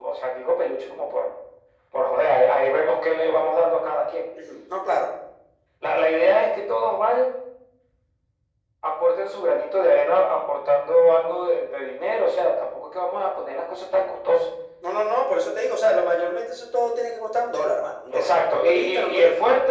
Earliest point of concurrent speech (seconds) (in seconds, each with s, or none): 18.1 s